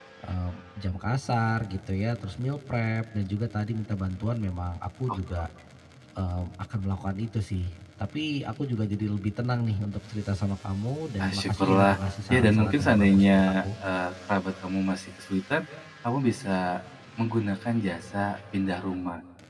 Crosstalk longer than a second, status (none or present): present